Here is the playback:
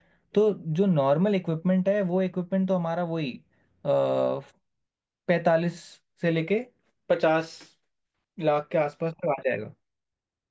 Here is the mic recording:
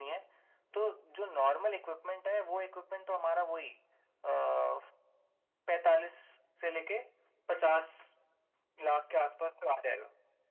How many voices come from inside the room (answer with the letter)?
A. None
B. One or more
A